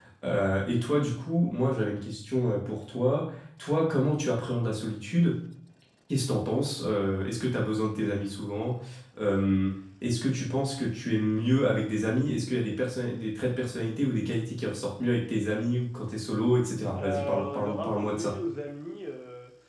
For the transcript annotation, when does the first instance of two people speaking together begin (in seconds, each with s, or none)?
16.9 s